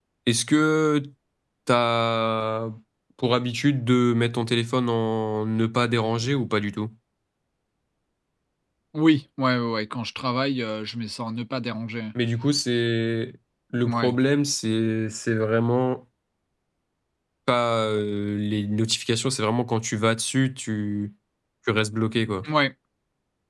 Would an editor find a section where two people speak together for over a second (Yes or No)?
No